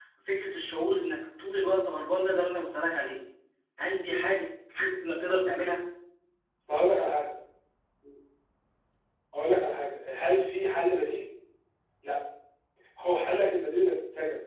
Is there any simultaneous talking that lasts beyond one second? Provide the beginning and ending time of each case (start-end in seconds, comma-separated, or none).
none